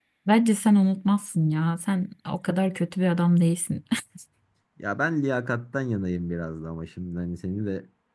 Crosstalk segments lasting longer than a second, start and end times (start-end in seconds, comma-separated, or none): none